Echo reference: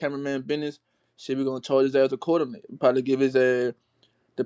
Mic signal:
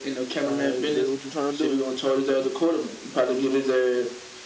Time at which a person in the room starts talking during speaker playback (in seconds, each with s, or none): 0.5 s